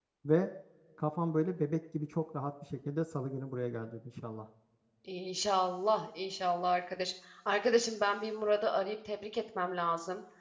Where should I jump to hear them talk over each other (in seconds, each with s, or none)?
none